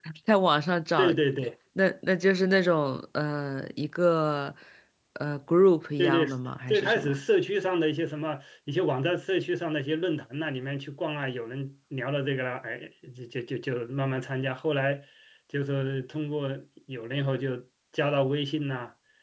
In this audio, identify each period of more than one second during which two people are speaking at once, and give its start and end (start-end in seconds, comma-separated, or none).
none